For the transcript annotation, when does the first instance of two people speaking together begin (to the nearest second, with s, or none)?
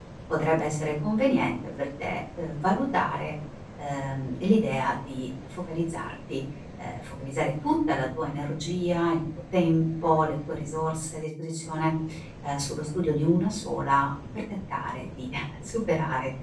none